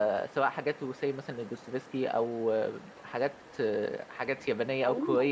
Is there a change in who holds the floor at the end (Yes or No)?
No